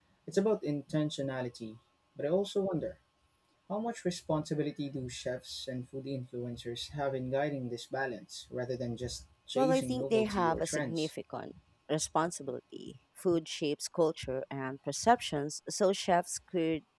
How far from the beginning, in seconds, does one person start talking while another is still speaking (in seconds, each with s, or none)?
9.6 s